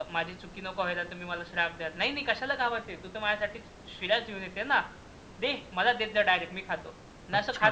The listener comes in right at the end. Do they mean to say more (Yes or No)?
No